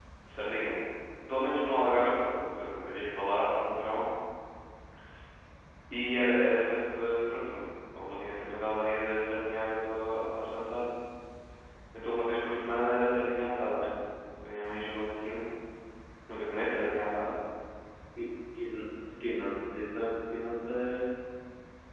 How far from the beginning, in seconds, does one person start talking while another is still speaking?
none

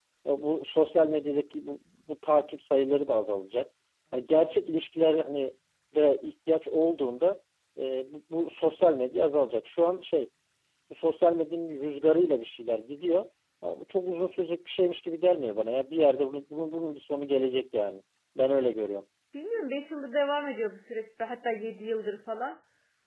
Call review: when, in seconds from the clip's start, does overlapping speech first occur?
none

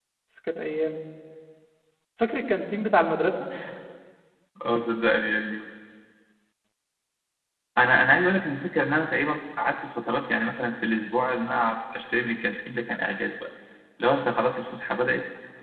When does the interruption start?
none

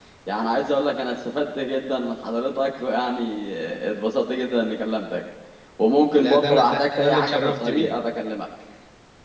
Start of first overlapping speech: 6.1 s

